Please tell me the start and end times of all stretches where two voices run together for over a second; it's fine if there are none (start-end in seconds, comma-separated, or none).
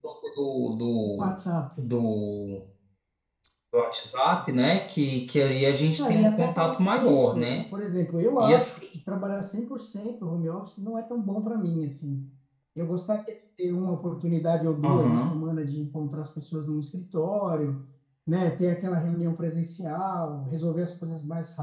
6.0-7.6